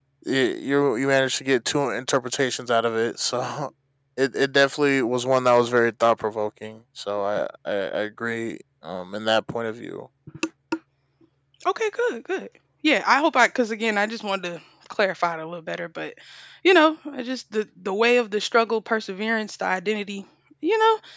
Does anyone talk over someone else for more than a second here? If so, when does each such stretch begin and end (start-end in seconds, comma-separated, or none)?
none